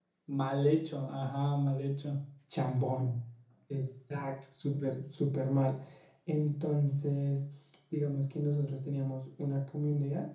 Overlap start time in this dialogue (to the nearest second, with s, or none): none